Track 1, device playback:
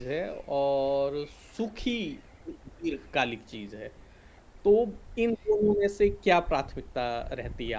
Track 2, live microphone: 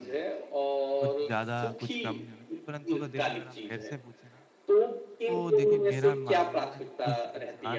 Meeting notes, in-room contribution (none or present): present